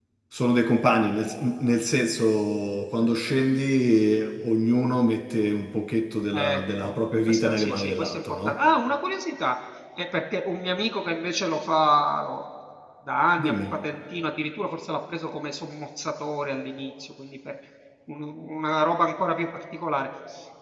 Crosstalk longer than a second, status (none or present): present